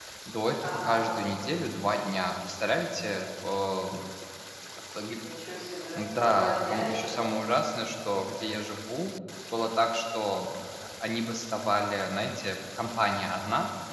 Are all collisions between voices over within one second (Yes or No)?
No